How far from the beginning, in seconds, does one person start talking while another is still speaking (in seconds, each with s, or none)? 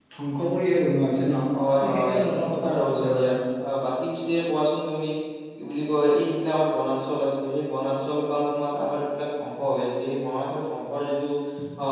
1.8 s